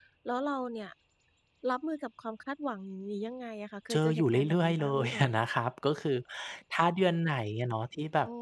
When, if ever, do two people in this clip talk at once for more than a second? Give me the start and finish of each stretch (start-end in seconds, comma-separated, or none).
3.9-5.3